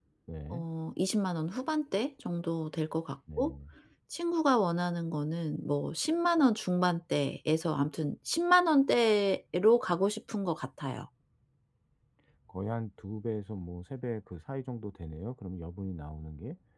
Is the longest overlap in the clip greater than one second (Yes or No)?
No